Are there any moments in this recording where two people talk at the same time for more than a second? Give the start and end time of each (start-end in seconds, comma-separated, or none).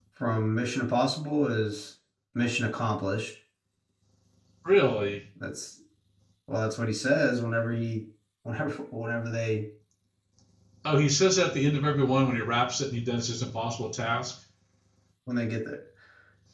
none